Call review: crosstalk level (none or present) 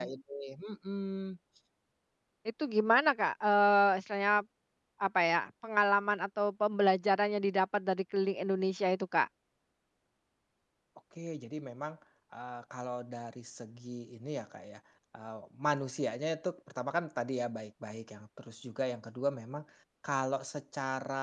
none